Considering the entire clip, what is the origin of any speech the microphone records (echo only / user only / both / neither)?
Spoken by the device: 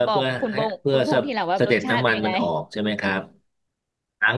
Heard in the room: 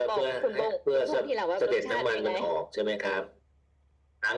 echo only